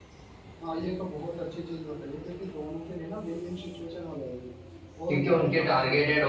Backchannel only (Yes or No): No